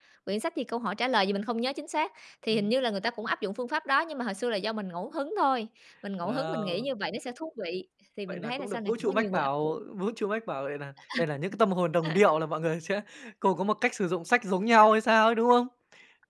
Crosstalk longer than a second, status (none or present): present